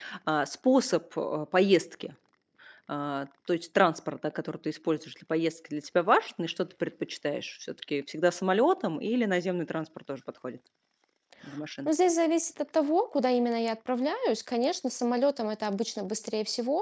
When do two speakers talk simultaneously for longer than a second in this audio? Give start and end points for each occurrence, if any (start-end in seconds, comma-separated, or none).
none